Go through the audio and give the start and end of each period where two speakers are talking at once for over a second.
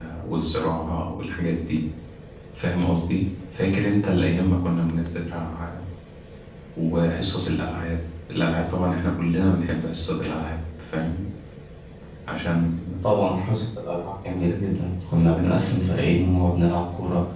none

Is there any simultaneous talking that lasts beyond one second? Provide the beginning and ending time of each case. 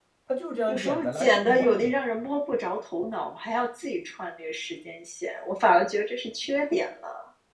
0.7-1.9

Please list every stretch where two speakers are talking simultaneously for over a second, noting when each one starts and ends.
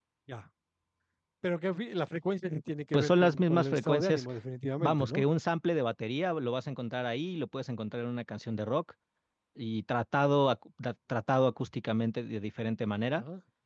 2.9-4.2

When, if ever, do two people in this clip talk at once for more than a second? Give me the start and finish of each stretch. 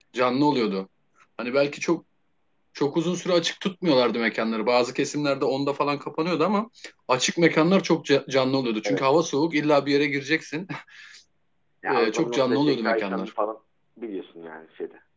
11.9-13.3

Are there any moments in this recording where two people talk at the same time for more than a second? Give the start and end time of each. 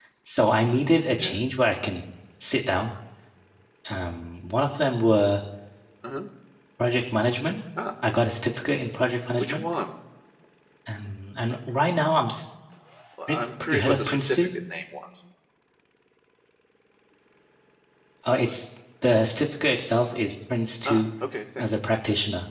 13.3-14.5

